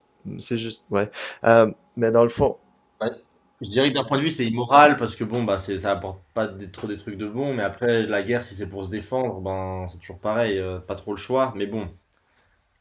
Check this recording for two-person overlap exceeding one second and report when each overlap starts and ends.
none

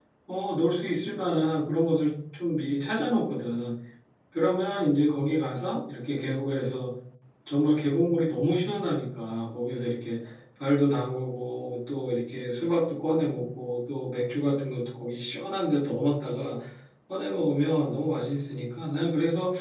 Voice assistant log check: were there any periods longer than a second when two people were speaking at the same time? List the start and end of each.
none

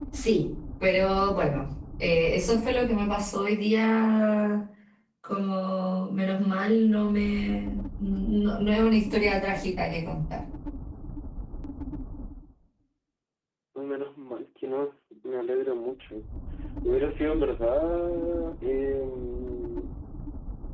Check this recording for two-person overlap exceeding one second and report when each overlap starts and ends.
none

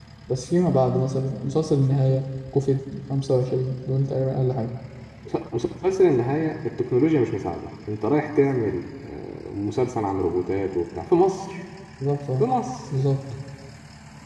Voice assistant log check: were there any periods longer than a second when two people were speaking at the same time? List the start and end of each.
none

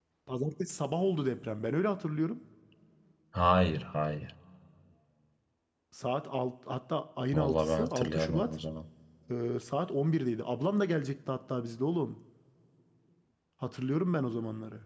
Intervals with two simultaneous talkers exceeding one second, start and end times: 7.3-8.5

